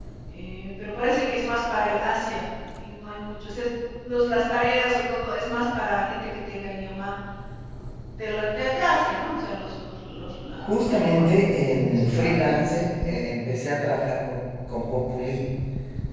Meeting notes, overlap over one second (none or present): present